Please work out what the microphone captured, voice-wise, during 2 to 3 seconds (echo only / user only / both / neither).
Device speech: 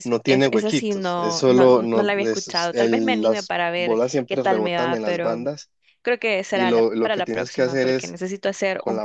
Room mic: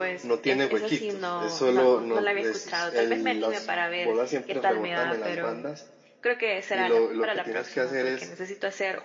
echo only